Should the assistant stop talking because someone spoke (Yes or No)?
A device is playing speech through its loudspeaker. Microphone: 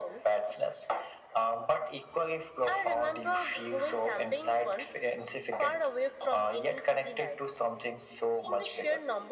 No